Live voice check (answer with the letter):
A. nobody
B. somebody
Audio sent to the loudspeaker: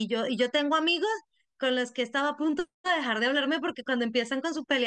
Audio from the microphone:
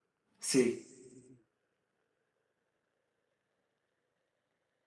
B